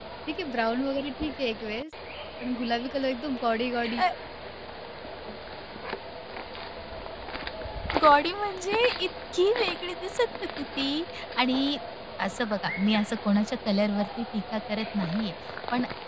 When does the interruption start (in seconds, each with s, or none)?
none